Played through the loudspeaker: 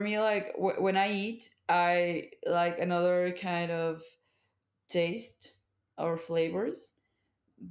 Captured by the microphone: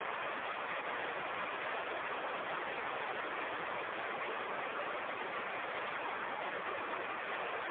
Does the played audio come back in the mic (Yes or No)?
No